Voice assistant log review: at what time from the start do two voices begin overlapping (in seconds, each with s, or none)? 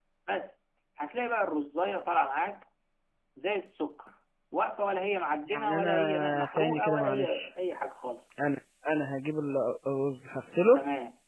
5.5 s